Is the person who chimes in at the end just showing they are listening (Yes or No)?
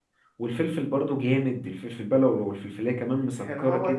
No